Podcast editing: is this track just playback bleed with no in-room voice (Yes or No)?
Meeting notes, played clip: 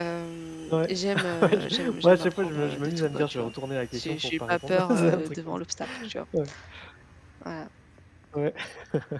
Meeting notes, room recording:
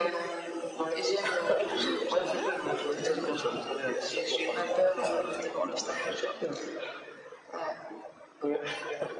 No